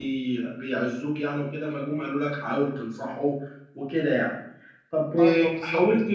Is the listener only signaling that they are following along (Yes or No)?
Yes